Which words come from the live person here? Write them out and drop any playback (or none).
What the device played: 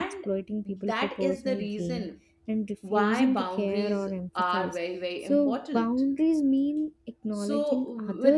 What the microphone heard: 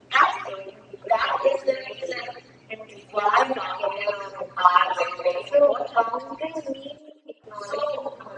none